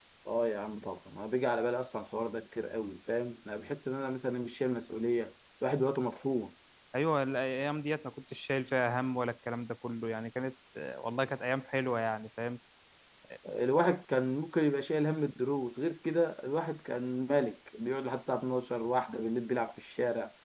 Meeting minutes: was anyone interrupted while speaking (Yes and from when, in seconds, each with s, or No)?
No